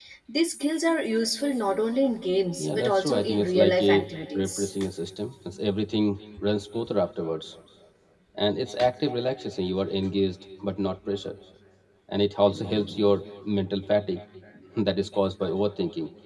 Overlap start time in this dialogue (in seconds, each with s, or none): 2.6 s